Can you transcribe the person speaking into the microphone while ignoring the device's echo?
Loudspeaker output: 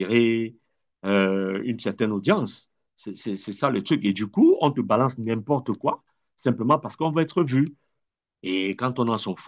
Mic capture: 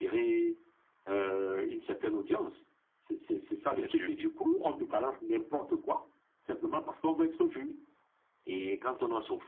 Il y a du.

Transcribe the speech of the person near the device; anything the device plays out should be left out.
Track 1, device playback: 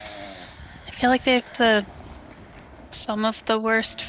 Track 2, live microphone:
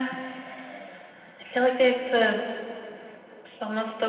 none

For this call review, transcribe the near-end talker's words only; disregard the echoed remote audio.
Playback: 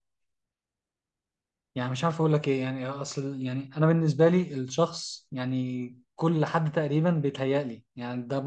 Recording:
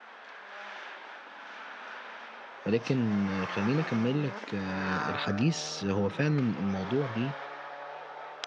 ولكن آه، خليني اكمل لك آه الحديث هو فعلا الموضوع ليه

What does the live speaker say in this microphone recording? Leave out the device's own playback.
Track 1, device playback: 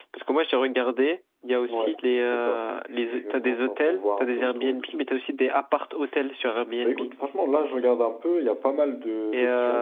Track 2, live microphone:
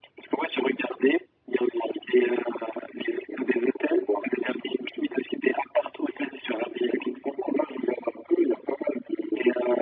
none

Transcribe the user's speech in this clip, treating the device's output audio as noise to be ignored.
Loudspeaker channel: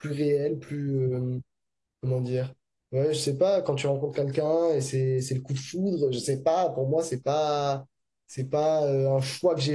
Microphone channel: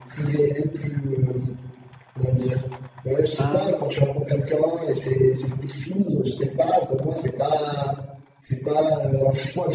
Ah,

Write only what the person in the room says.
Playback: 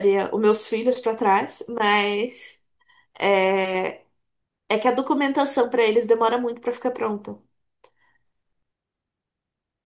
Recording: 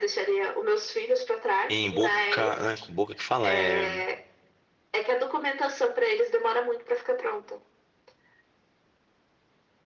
Em Boca, né, Boca que fala, é,

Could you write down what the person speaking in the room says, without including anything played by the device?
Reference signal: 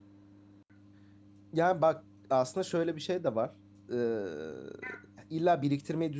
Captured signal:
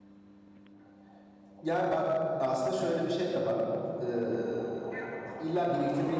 none

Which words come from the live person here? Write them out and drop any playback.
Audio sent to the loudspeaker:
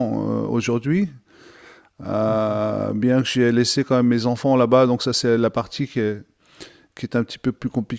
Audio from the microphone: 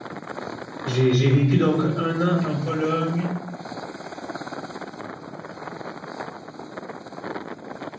J'ai, j'ai vécu donc un an en Pologne.

